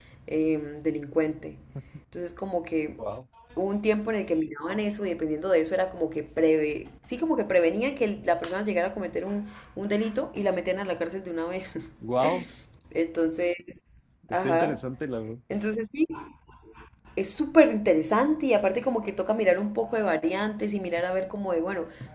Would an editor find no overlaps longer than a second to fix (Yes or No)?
Yes